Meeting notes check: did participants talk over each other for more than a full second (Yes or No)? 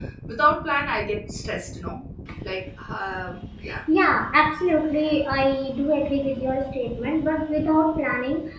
No